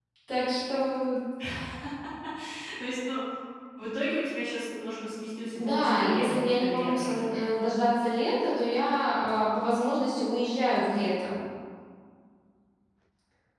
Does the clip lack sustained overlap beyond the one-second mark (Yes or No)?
No